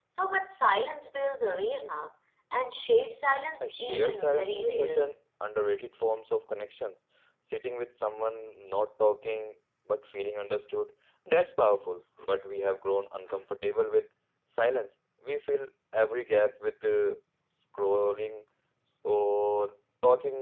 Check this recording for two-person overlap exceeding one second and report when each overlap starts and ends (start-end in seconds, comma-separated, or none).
3.6-5.0